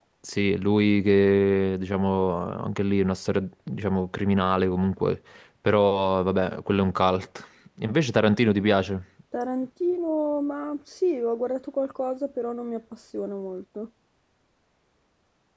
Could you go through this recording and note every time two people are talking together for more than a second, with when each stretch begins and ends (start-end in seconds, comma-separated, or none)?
none